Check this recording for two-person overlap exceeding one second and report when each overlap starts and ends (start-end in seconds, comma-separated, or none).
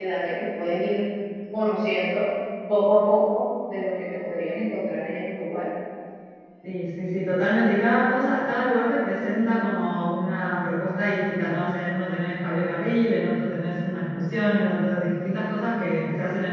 none